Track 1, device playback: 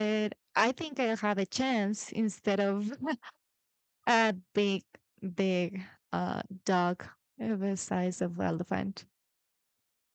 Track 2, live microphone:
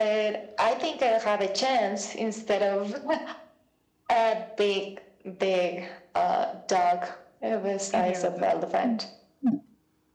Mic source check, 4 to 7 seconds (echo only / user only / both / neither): echo only